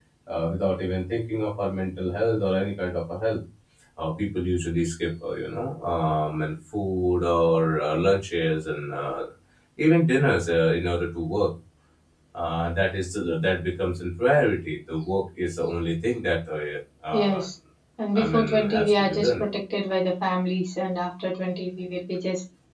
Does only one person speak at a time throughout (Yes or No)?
No